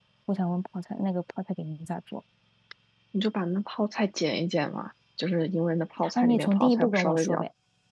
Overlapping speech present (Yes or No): Yes